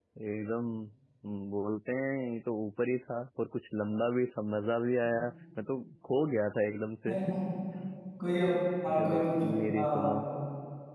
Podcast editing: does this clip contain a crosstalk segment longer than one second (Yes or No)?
Yes